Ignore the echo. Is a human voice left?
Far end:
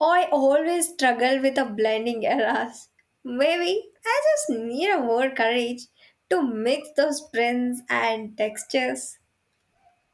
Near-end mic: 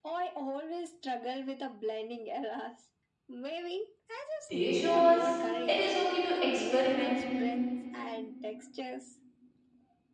Yes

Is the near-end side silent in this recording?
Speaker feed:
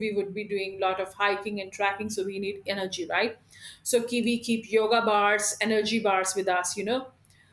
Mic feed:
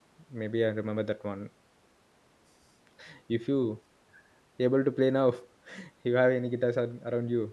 No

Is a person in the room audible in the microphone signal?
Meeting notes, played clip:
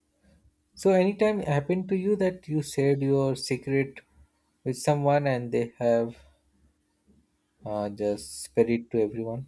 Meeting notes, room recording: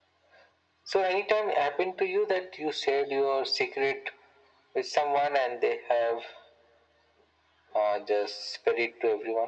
No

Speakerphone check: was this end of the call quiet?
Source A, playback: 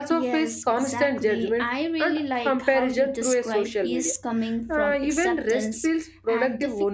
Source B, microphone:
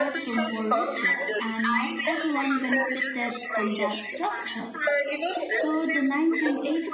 No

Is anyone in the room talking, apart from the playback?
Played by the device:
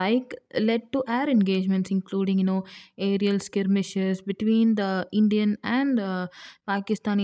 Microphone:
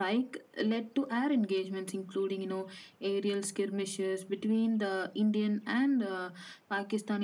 No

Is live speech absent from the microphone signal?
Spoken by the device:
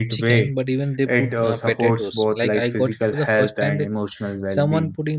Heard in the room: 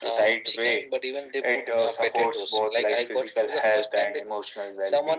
Yes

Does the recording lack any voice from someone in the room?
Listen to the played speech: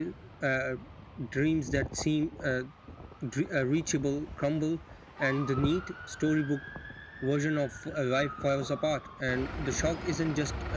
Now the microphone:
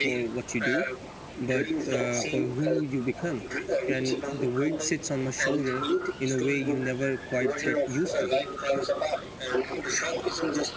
No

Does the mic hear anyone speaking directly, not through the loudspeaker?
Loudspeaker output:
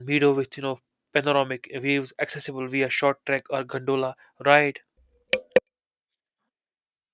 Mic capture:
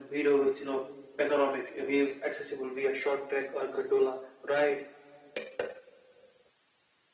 No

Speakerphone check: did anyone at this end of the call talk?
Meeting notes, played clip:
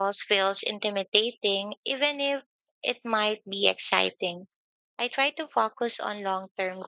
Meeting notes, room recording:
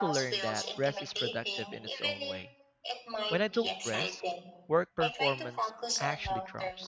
Yes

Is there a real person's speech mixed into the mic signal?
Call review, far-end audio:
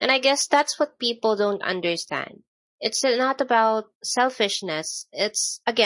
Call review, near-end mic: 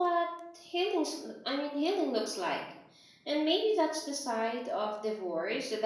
Yes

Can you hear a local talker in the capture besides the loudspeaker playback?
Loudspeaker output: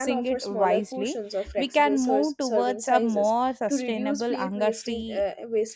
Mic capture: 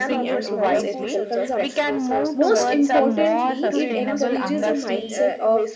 Yes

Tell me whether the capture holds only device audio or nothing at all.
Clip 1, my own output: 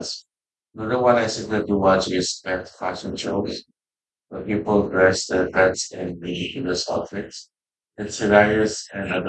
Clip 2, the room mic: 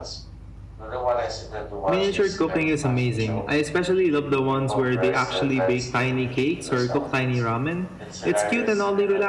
No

